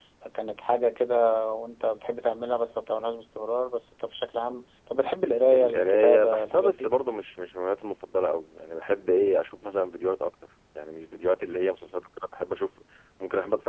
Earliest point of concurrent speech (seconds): 6 s

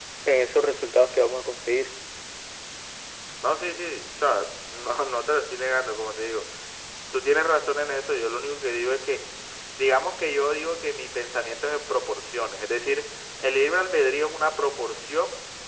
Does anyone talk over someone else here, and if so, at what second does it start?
none

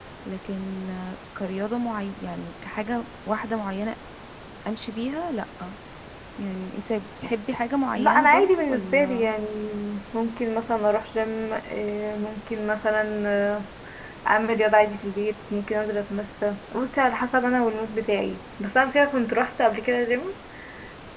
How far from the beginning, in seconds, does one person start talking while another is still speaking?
8 s

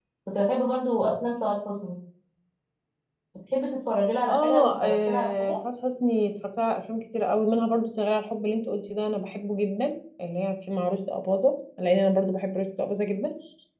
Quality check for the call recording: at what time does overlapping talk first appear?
4 s

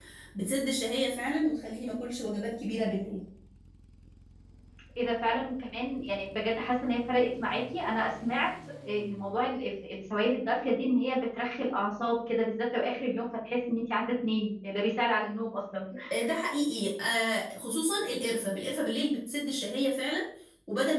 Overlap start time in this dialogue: none

